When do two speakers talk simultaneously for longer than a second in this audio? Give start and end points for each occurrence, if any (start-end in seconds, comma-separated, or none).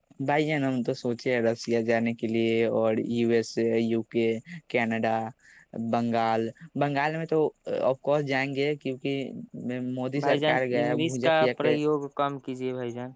10.2-11.8